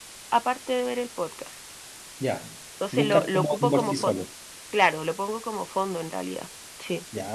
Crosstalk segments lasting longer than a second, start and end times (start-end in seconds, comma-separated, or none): 2.9-4.2